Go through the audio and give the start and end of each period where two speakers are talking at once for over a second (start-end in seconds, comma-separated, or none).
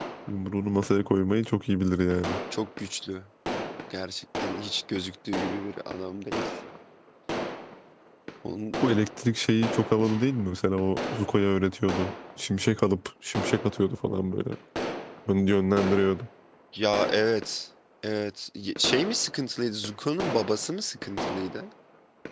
none